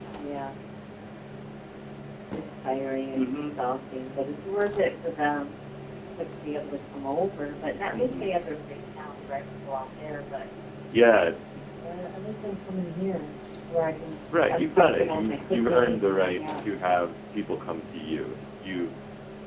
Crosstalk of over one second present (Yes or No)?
Yes